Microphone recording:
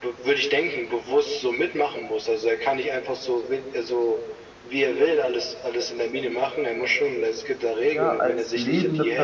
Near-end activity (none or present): present